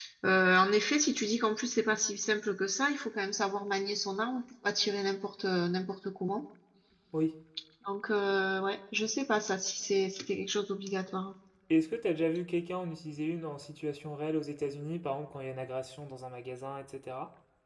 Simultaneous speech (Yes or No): No